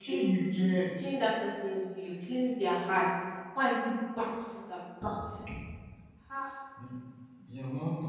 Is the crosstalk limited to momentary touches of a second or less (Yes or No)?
Yes